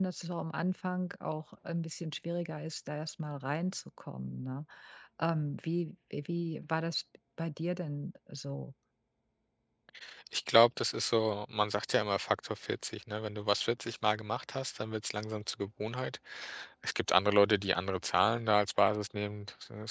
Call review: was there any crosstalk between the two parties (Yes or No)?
No